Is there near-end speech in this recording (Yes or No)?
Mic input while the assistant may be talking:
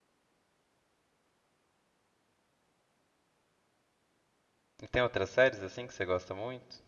Yes